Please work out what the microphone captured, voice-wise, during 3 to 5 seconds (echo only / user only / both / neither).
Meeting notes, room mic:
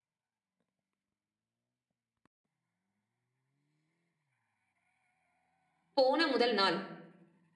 neither